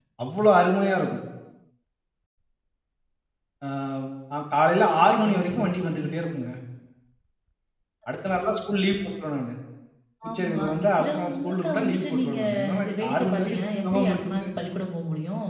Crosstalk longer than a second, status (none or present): present